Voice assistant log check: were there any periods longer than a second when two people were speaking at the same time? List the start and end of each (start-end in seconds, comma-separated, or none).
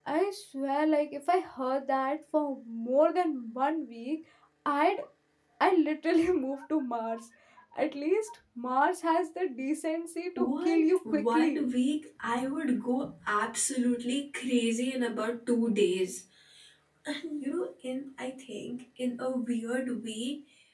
10.4-11.7